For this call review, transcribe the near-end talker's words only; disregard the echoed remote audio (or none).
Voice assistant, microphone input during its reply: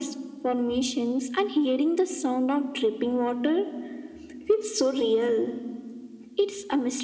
none